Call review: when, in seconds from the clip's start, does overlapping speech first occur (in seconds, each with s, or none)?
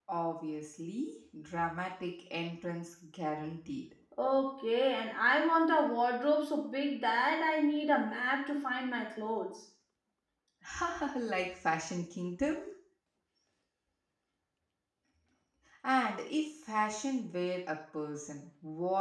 none